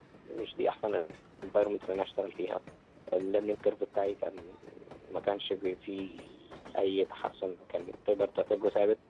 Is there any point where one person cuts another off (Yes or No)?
No